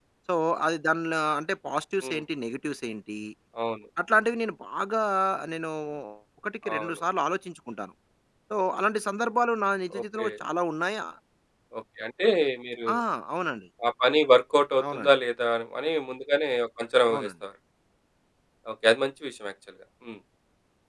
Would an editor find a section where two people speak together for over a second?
No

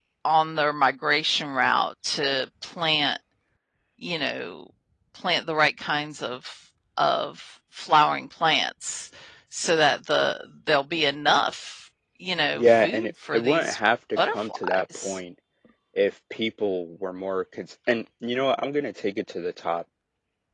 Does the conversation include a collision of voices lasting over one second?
Yes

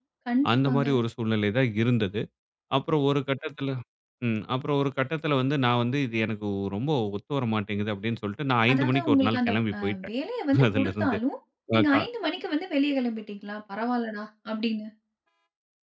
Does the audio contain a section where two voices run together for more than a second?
Yes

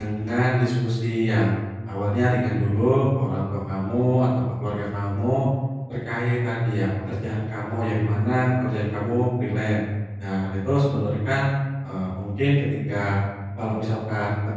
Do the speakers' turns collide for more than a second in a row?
No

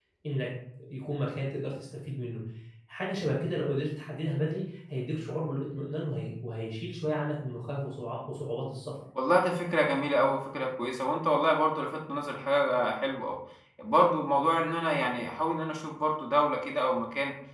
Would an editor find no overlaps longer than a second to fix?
Yes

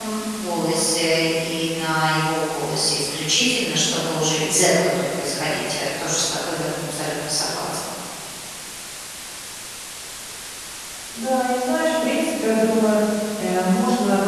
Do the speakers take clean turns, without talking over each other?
Yes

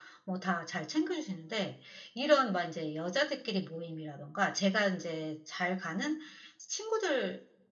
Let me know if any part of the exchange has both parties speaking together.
No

